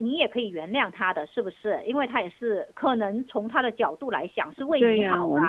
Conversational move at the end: taking over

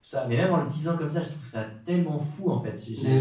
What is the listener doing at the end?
listening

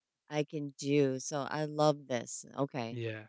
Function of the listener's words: taking over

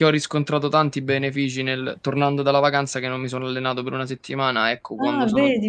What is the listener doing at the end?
taking over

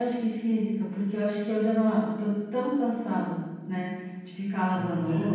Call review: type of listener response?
taking over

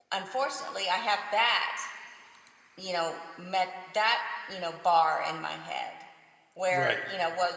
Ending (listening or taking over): listening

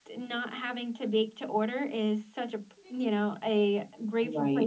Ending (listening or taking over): listening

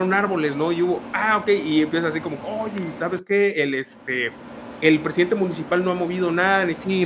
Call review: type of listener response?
taking over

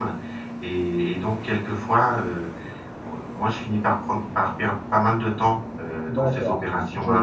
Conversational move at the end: taking over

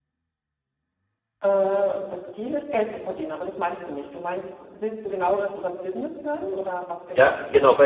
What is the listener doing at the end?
taking over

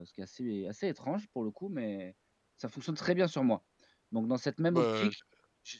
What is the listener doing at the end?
listening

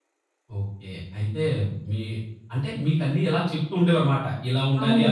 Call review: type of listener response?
taking over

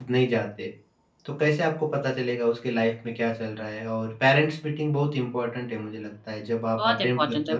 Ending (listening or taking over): taking over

